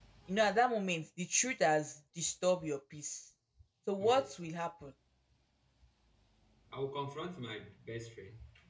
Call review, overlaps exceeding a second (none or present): none